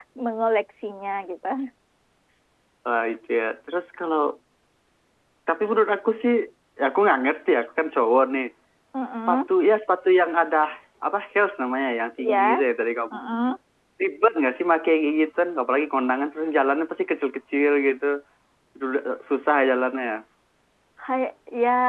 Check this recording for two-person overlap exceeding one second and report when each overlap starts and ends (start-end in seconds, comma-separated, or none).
none